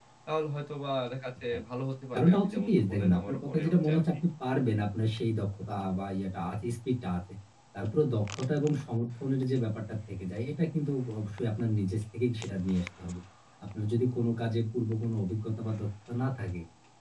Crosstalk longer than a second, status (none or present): present